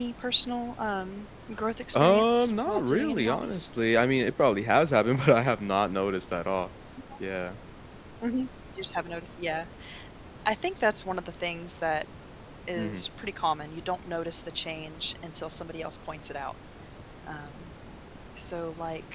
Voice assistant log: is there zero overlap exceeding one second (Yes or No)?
No